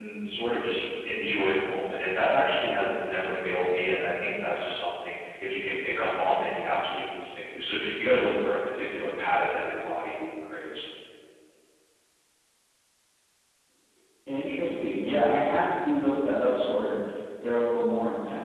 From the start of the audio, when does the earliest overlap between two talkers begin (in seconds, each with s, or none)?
none